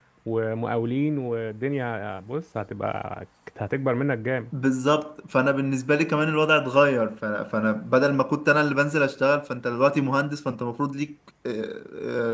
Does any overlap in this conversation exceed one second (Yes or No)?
No